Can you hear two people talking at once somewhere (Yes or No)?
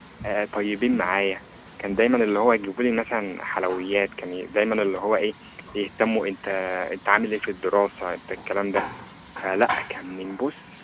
No